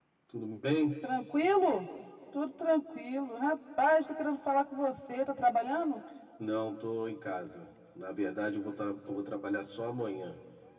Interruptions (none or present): none